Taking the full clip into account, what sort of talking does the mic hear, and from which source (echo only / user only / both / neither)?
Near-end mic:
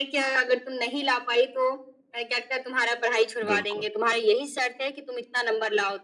both